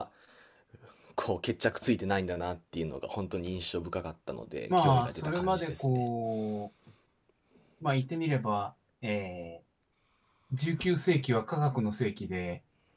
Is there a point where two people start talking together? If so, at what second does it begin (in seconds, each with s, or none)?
4.7 s